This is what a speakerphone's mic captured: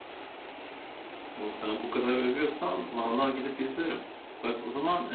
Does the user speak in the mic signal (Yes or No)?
Yes